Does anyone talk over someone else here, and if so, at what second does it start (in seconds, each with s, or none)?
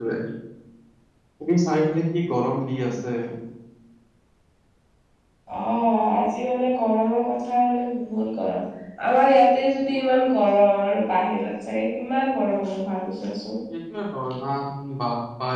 none